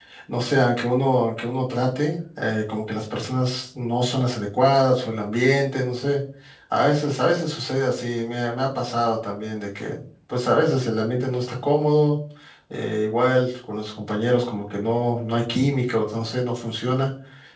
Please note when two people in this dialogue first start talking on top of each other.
none

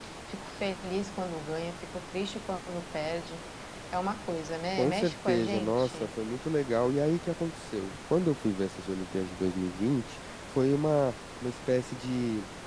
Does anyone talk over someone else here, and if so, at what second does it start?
4.8 s

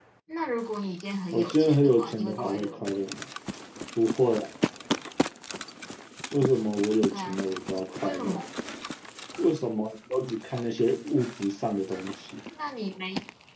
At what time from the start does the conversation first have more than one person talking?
1.3 s

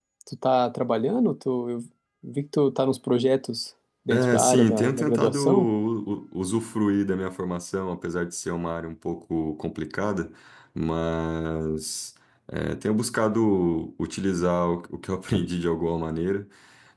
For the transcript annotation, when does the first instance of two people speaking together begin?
4.1 s

